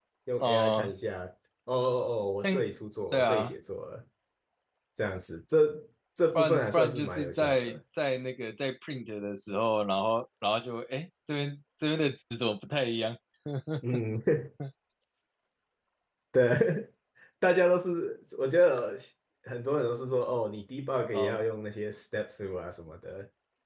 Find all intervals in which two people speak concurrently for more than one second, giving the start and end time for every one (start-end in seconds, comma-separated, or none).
6.4-7.8